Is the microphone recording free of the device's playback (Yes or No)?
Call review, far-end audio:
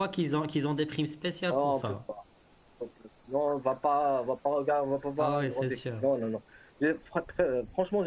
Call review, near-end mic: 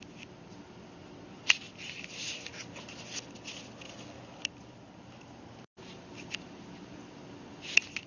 Yes